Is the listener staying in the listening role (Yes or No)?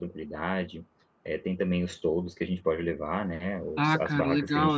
No